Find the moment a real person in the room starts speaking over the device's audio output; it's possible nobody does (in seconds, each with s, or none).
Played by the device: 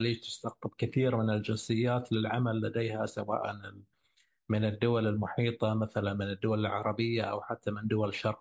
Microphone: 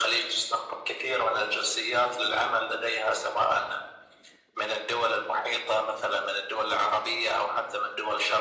none